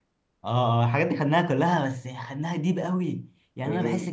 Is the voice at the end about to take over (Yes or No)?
No